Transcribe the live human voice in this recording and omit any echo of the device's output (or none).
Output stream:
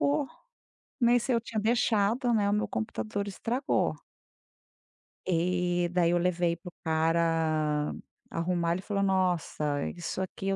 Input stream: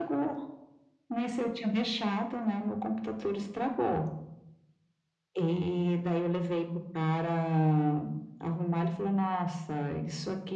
none